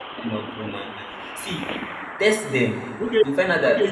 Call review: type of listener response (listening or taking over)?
taking over